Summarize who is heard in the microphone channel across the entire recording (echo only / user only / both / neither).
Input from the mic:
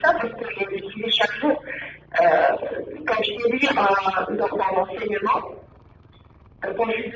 echo only